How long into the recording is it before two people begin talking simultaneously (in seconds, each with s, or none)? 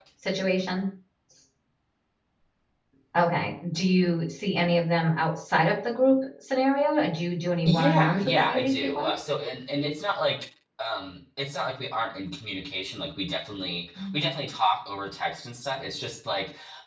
7.6 s